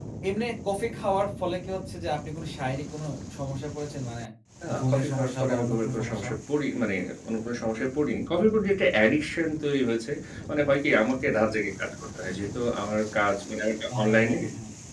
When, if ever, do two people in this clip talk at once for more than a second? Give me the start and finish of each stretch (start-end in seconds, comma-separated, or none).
4.8-6.3